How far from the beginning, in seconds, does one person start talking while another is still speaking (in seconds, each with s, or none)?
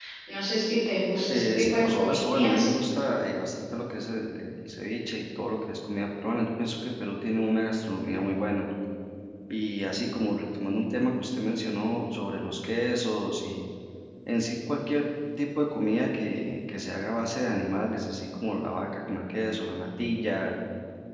1.3 s